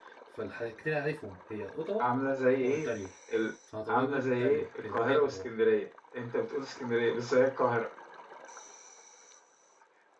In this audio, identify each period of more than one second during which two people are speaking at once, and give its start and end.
3.9-5.5

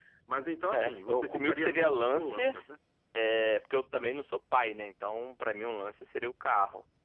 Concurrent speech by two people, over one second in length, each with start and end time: 0.7-2.5

